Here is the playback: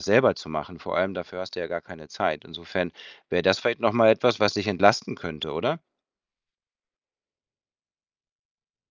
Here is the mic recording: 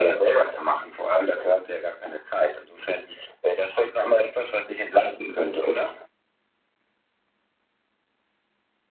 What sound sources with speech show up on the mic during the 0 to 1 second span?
echo only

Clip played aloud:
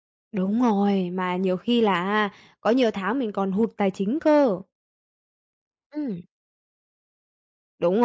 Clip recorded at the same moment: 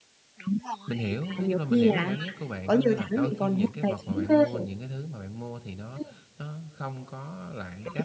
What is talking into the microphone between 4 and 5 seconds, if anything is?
both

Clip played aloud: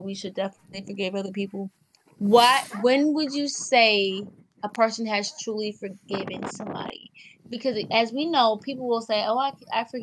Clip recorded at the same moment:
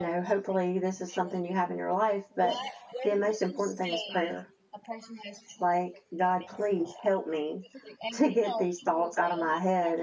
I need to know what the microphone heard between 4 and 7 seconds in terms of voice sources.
both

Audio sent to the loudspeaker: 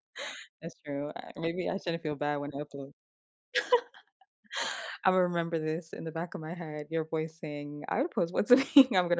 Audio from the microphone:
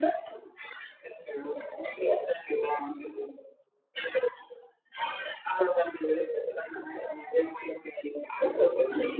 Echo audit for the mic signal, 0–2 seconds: echo only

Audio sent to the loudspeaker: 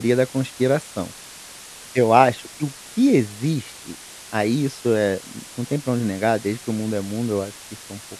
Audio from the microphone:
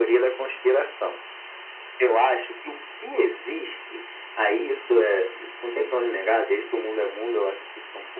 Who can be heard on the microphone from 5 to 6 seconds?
echo only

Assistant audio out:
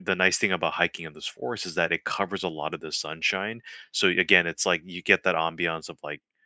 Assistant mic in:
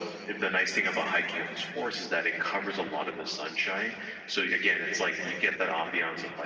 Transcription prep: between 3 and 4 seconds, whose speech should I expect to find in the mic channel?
echo only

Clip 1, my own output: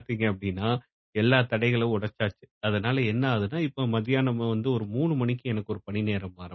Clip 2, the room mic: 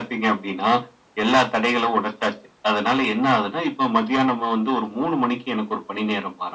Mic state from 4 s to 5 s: echo only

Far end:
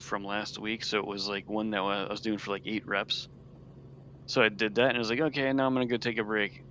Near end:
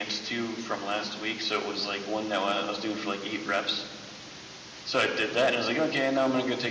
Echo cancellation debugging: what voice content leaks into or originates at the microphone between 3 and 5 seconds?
echo only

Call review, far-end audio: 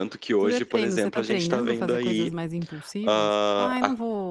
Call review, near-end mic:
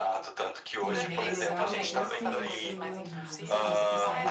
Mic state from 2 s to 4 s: both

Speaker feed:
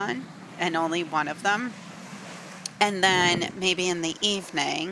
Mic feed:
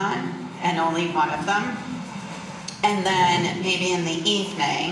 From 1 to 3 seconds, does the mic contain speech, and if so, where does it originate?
echo only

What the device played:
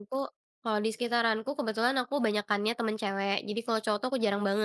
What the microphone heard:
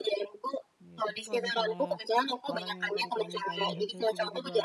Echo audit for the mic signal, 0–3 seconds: both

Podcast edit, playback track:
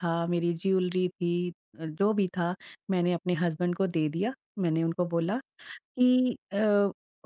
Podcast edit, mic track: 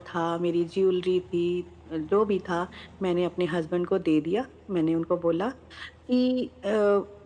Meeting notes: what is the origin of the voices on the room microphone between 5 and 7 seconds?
echo only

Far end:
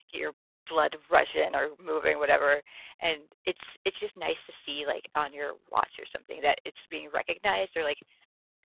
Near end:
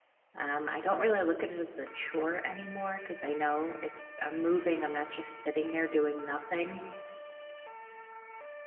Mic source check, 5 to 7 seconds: user only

